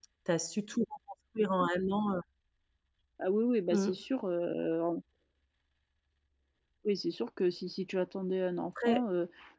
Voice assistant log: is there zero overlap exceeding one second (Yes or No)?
Yes